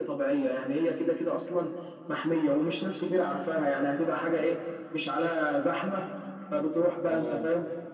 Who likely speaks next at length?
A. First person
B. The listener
A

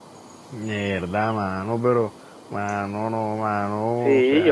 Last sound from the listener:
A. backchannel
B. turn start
B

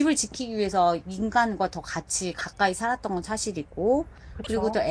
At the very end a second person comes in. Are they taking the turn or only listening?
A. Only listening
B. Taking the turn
A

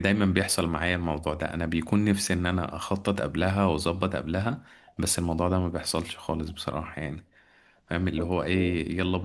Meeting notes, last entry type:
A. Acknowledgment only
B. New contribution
A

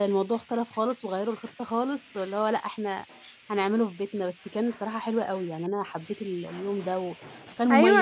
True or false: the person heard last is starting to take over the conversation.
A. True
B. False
A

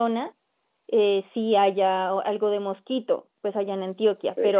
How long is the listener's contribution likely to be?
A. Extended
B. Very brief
B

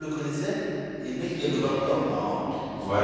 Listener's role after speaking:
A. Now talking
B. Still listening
A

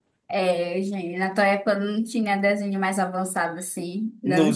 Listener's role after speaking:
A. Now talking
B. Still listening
B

